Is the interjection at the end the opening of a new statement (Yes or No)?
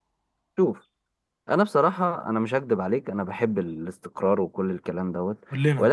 No